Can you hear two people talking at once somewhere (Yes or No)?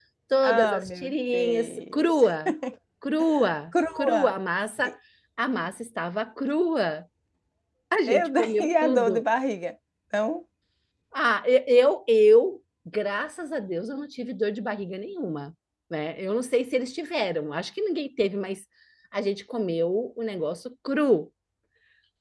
Yes